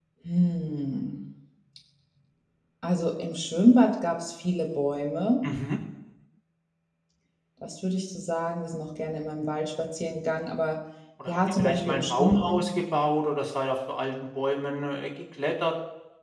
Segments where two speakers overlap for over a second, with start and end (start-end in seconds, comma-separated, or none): 11.3-12.6